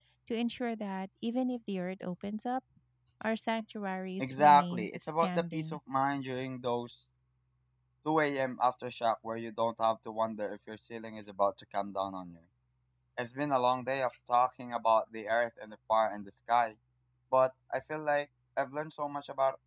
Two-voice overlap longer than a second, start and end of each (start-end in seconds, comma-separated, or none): 4.2-5.8